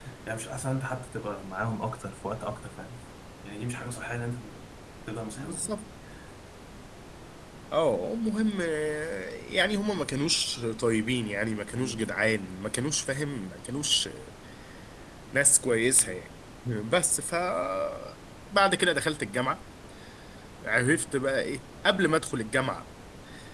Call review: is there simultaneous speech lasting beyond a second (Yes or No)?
No